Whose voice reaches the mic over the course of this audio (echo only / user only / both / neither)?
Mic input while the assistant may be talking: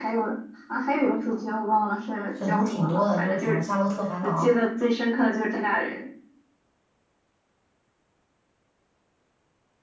both